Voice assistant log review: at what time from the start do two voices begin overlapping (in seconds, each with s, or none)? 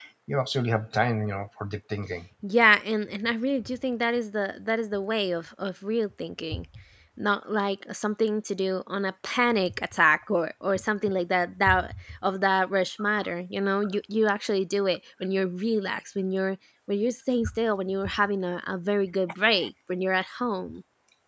none